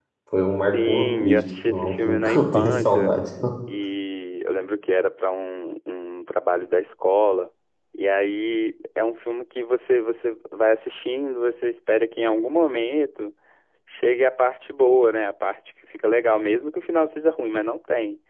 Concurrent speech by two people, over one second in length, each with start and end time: 0.7-3.1

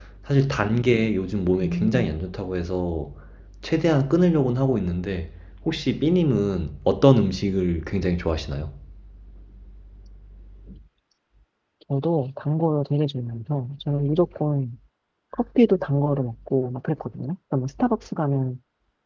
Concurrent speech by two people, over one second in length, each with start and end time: none

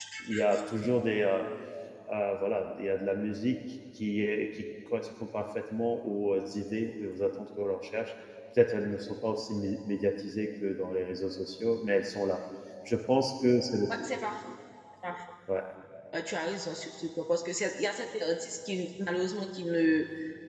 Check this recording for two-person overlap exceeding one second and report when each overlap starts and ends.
none

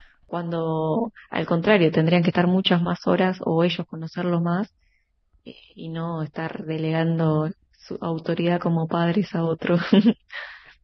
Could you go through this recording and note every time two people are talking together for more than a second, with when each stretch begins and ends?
none

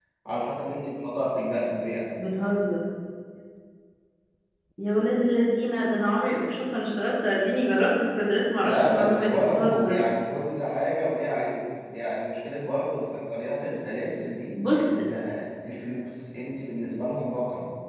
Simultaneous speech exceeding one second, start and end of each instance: 8.6-10.0

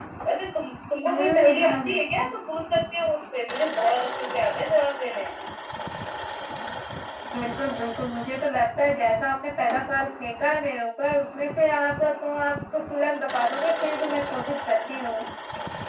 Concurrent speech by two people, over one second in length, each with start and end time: 1.1-2.4

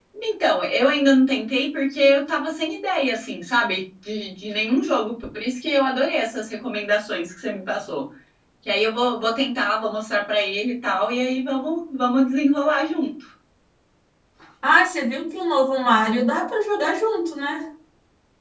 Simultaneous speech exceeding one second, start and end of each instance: none

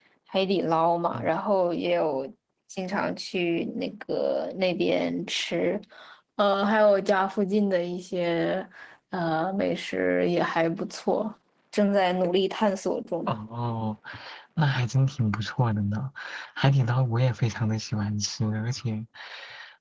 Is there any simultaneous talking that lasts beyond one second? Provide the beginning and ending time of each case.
none

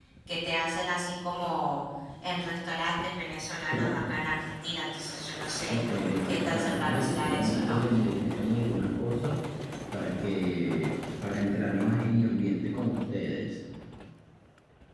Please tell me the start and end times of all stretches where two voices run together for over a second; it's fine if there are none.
6.2-7.8

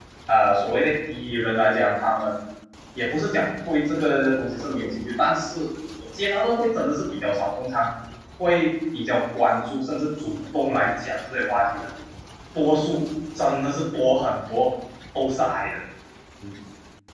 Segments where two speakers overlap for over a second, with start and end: none

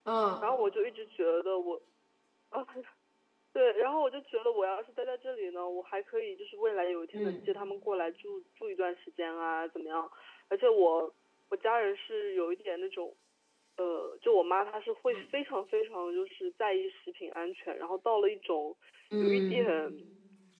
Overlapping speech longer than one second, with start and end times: none

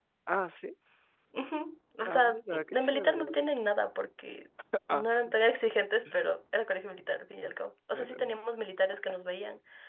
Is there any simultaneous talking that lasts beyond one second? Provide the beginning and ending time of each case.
2.0-3.4

